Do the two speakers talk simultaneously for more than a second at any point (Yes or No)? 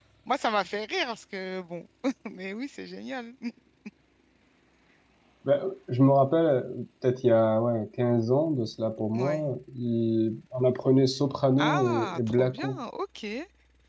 Yes